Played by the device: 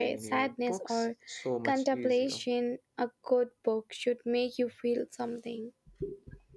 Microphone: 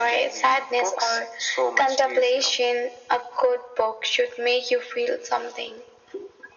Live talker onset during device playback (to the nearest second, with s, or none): none